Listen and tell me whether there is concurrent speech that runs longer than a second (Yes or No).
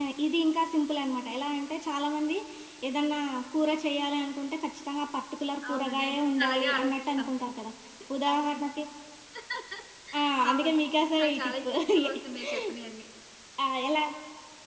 Yes